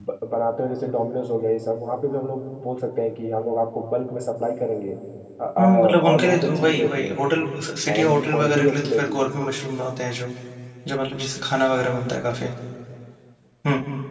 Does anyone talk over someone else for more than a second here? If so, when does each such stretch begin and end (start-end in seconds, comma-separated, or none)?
5.6-7.2, 7.9-9.2